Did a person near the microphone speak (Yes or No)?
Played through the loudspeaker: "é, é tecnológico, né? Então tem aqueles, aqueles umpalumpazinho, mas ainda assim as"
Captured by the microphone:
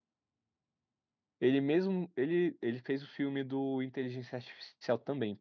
Yes